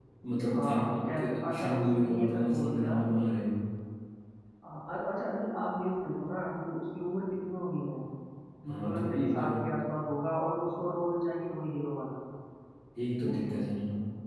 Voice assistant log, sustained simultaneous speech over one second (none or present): present